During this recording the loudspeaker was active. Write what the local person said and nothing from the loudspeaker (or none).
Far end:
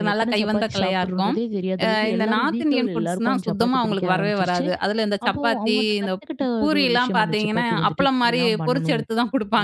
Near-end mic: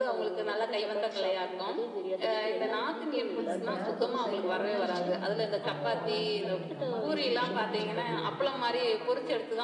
அப்போ எனக்கு அந்த எறா தொக்கு செய்யும்போதெல்லாம் எங்க அம்மா தான் நினைவுக்கு வருவாங்க. பரவாயில்லையே! எங்க அம்மா டேஸ்ட்டுக்கு கொண்டு வந்துட்டேனே அப்படின்னு.